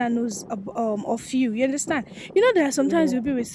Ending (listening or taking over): listening